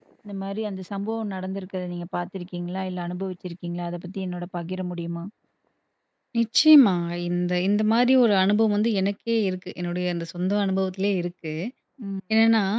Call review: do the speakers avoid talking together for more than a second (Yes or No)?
Yes